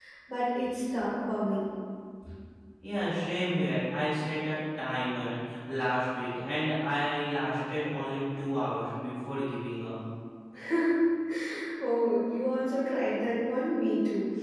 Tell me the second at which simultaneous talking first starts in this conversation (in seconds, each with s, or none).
none